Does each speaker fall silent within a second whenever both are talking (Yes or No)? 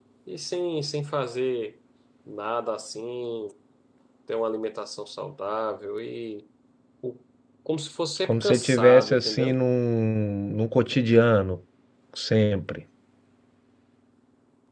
No